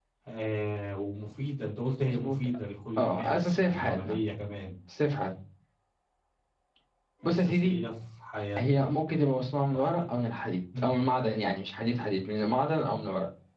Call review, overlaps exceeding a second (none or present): present